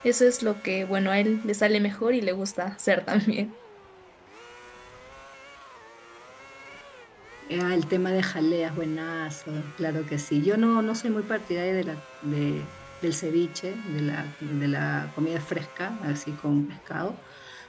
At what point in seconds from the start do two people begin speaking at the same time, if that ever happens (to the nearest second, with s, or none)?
none